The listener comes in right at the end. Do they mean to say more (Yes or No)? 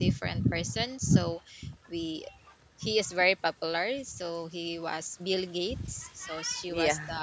No